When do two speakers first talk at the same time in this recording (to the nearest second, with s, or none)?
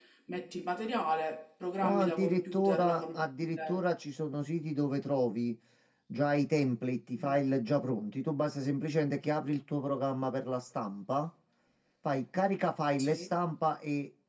2 s